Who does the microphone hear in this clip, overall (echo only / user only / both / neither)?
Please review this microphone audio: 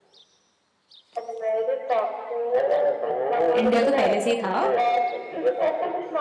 both